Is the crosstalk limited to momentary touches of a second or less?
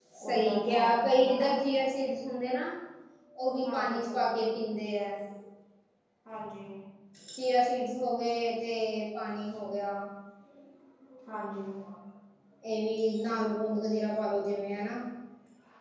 No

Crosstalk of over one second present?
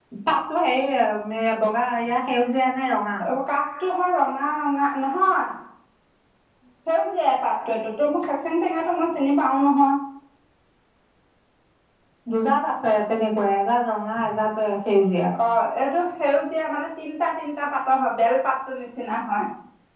No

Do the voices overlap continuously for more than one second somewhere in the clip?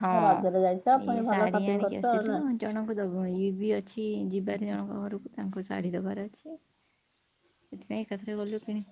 Yes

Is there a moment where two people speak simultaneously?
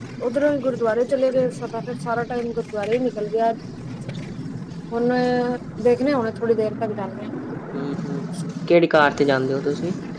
No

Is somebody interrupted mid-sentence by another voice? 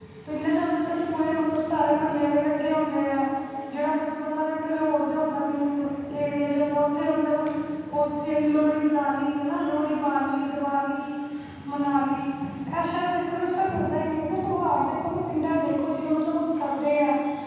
No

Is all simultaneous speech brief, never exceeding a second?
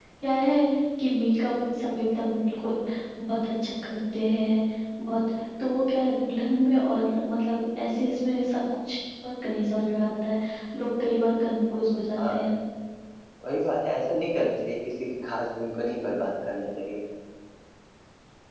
Yes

